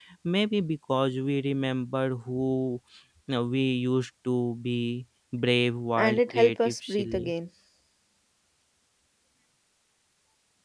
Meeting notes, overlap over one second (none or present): present